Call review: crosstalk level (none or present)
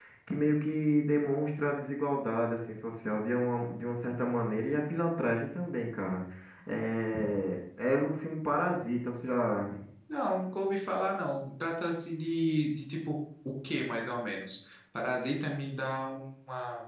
none